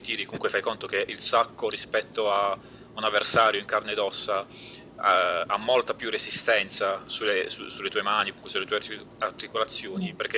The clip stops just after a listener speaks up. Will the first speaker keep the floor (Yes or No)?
Yes